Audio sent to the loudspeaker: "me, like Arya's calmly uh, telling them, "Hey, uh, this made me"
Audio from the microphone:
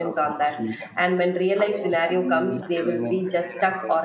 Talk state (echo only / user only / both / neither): both